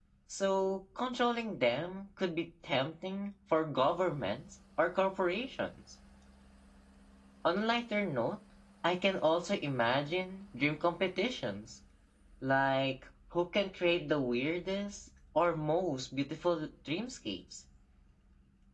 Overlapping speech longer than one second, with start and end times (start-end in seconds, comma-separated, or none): none